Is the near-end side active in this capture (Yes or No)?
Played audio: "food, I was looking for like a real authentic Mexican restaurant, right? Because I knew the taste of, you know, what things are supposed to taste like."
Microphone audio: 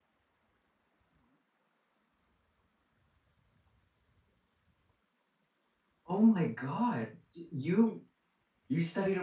Yes